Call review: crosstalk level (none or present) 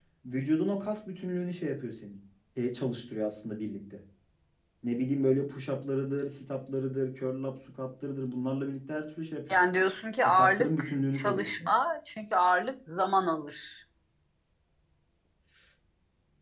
present